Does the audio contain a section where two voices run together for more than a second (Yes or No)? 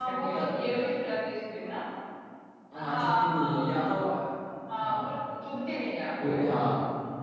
Yes